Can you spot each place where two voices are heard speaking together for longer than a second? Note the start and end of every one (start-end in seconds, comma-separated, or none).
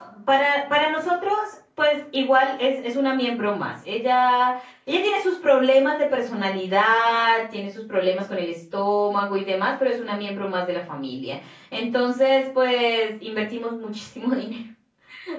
none